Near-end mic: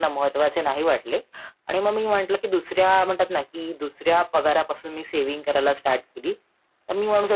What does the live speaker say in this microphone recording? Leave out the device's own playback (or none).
none